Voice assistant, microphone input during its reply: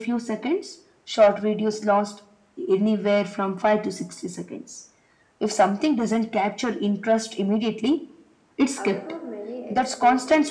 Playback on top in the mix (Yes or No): Yes